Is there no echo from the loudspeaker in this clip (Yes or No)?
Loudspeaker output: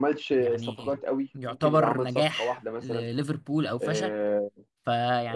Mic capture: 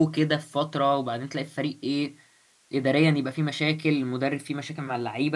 Yes